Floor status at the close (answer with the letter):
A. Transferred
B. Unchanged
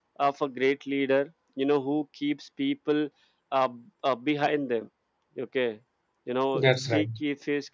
B